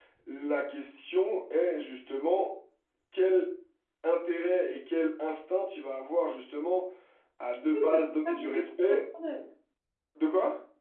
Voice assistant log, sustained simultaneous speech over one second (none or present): present